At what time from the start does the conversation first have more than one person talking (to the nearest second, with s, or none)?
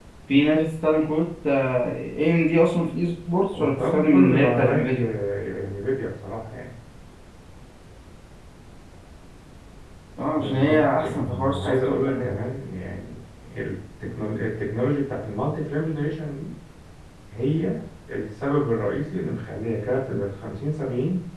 4 s